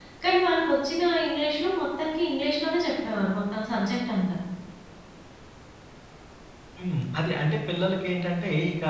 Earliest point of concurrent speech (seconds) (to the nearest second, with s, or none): none